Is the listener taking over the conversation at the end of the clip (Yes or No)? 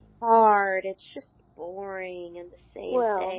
Yes